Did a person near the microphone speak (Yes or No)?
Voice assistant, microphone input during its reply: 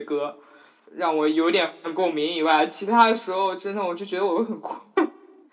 No